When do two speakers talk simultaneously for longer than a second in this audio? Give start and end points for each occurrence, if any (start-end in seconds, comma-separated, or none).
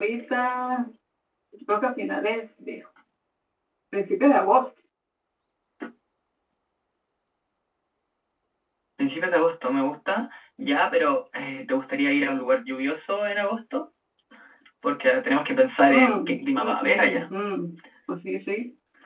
15.9-17.2